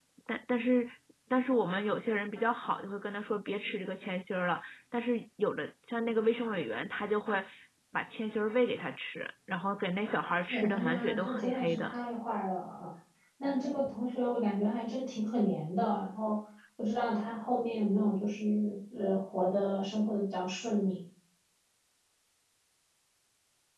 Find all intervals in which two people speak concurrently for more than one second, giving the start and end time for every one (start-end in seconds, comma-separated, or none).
10.5-11.9